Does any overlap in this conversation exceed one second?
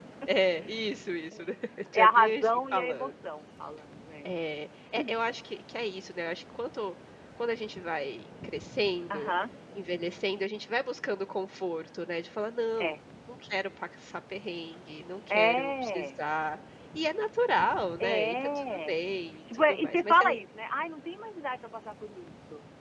Yes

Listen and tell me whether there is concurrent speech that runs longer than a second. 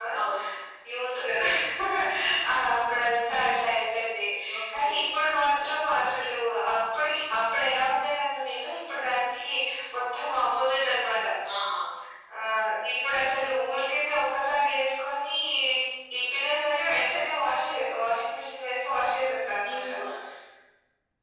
No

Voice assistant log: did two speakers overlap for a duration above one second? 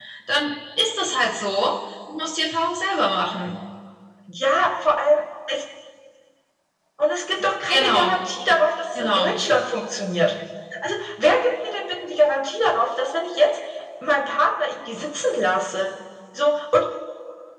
No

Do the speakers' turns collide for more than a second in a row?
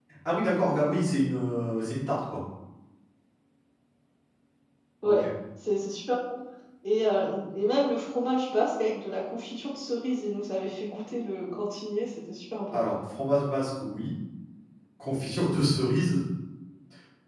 No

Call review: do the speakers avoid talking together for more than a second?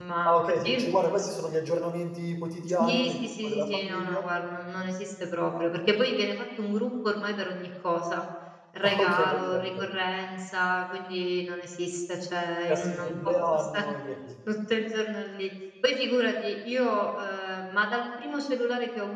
No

